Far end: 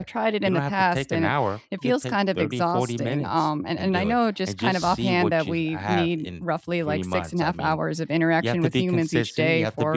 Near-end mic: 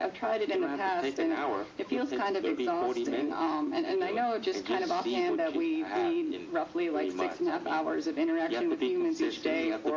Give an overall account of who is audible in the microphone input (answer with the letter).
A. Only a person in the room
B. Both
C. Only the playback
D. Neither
C